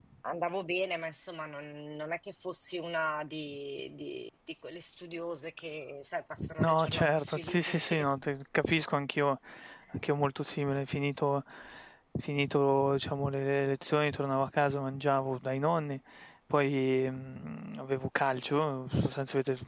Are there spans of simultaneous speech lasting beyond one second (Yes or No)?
Yes